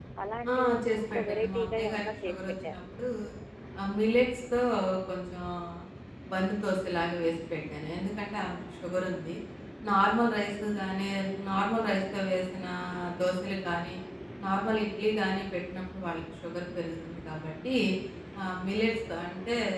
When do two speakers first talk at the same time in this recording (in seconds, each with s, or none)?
0.5 s